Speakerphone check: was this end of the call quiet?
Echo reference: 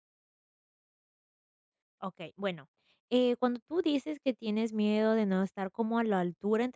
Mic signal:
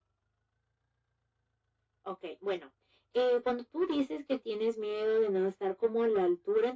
Yes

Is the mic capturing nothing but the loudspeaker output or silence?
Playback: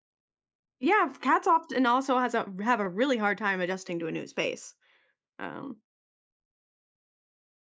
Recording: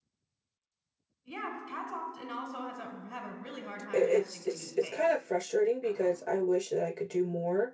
No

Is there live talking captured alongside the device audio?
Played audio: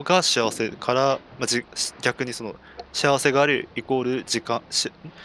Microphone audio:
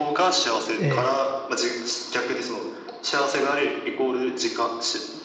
Yes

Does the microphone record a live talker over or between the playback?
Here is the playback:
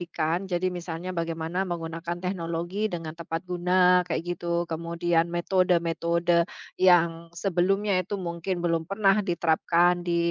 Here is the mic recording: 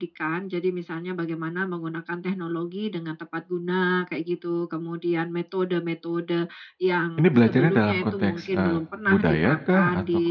Yes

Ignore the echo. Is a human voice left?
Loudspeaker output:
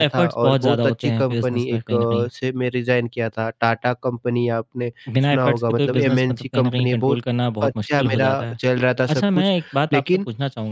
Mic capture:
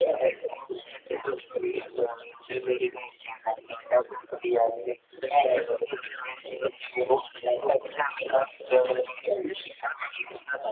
Yes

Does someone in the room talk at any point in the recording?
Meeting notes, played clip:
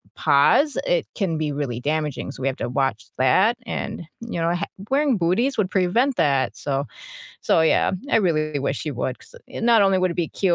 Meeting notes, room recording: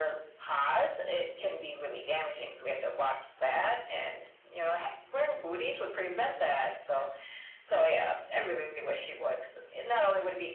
No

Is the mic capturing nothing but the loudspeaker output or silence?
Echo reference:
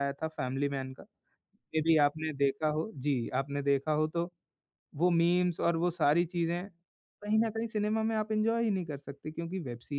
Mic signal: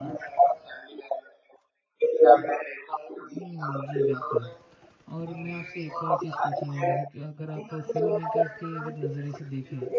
No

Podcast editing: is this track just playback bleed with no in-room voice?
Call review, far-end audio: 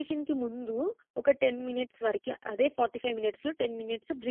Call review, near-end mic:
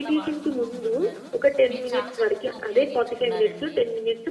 No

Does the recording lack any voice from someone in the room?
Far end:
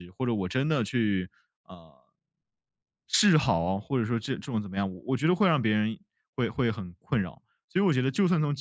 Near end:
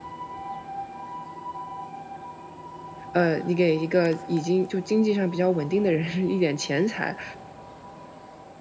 No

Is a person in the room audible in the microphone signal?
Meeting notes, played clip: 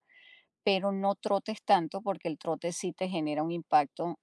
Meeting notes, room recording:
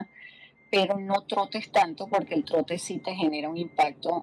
No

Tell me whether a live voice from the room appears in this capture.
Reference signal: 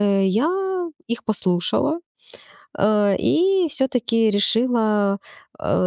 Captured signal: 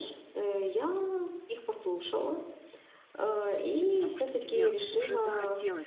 Yes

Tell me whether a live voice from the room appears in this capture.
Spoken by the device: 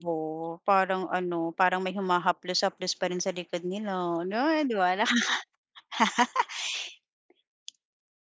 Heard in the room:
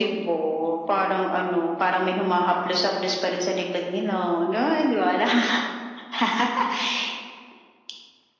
No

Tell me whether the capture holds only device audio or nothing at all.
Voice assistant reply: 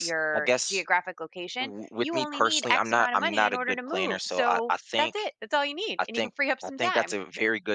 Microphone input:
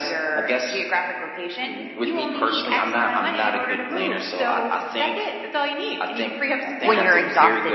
No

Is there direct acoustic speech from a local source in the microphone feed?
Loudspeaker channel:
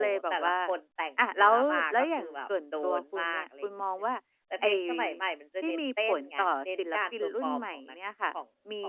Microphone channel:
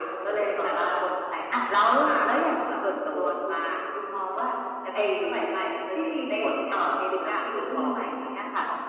No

